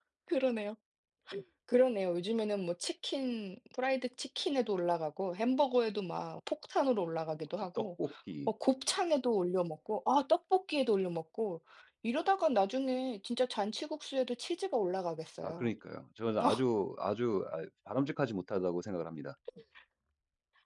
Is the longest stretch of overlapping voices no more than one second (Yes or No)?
Yes